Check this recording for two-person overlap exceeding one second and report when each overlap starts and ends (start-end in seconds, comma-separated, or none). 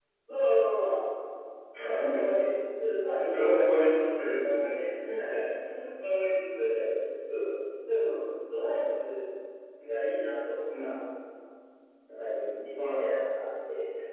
3.3-4.6